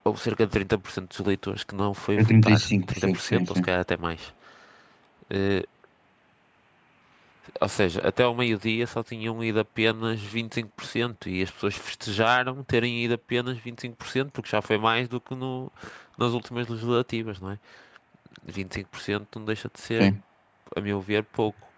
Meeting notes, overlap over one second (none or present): present